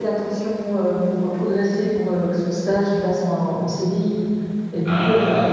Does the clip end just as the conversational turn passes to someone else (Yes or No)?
No